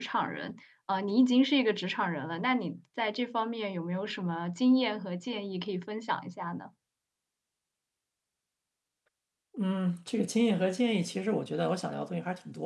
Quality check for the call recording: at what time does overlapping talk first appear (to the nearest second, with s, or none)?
none